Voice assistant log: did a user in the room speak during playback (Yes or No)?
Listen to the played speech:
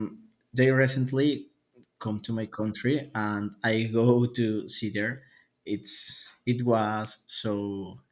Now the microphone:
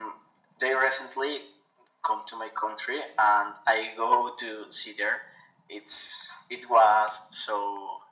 No